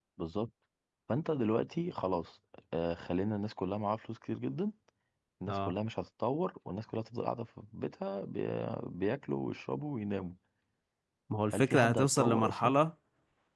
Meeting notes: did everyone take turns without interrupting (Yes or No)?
No